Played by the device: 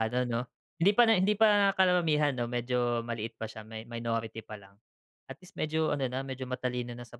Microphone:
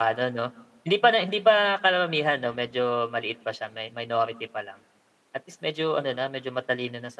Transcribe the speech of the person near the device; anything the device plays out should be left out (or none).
none